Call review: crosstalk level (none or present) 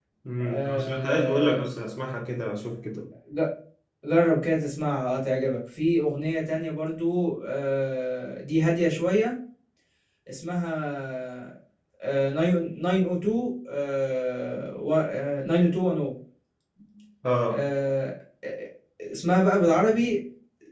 present